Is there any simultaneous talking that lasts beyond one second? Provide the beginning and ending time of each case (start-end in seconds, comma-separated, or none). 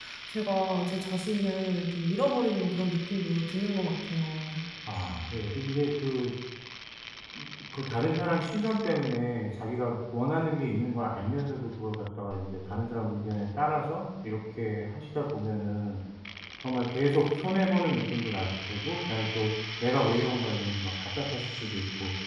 none